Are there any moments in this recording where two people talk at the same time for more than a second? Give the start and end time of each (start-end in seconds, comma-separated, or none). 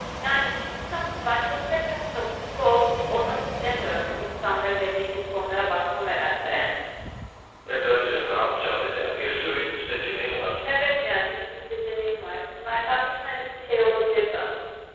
none